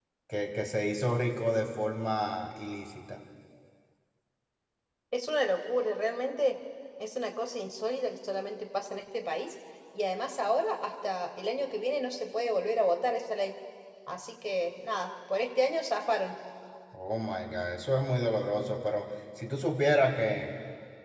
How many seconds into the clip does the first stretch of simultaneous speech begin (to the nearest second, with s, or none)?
none